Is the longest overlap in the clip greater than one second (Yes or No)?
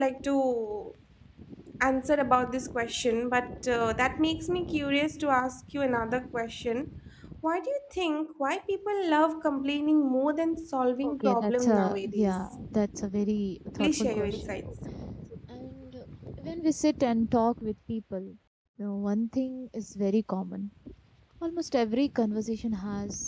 Yes